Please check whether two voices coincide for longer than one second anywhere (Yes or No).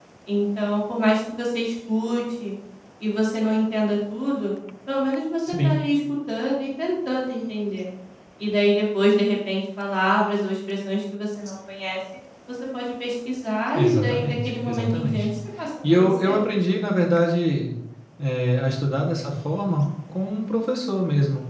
Yes